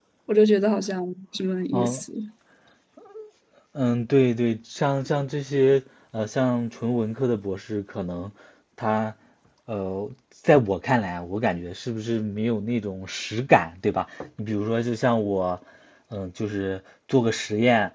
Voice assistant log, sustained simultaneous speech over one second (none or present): none